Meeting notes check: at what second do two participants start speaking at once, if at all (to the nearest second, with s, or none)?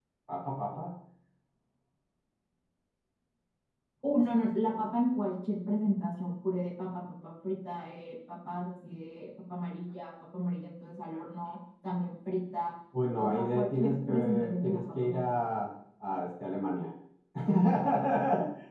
13 s